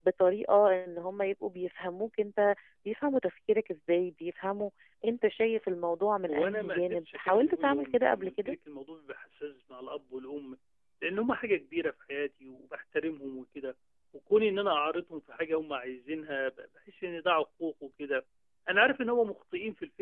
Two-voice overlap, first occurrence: 6.3 s

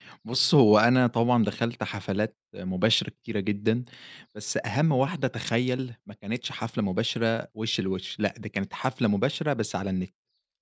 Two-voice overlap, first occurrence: none

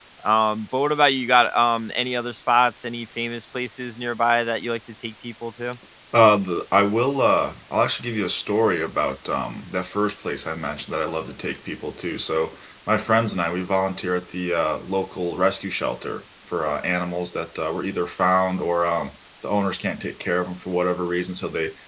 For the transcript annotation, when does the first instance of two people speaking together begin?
none

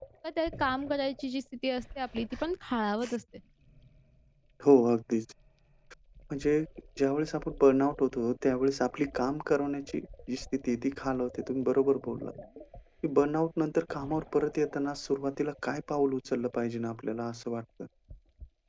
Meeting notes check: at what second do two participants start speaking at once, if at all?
none

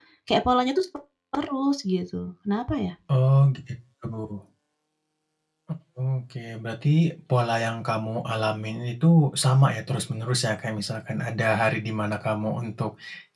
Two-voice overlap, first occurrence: none

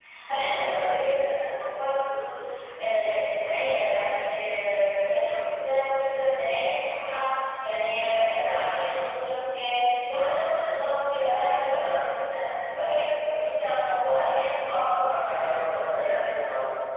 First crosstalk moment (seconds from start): 15.0 s

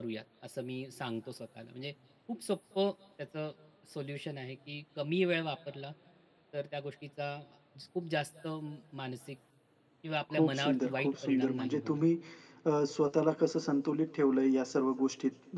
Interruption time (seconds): 10.3 s

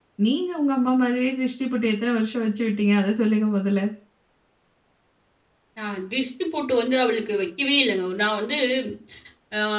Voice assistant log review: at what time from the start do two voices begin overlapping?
none

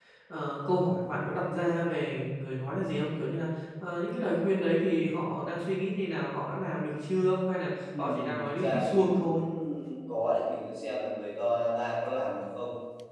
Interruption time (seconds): 7.9 s

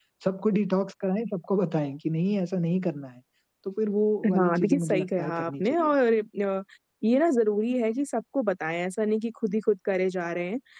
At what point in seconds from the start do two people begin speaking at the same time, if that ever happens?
4.4 s

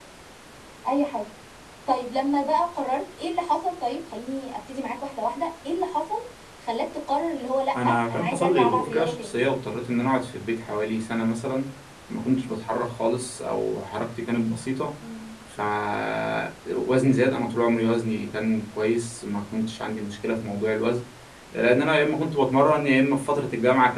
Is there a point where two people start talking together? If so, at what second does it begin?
8.1 s

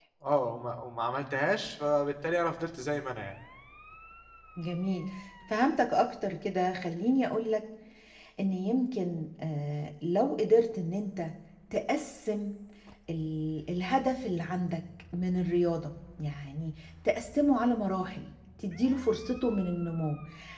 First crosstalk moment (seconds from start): none

